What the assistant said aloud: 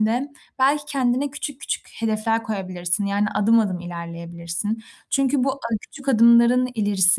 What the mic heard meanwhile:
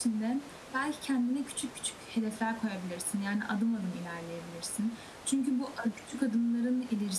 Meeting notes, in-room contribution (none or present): none